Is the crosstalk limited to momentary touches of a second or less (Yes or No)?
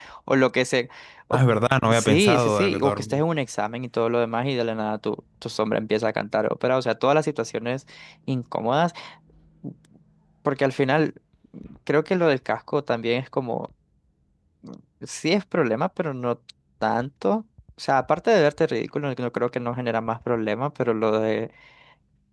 No